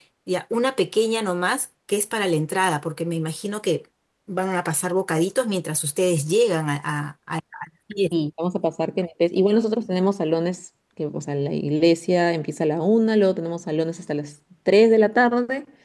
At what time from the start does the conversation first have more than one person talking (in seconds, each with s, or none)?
none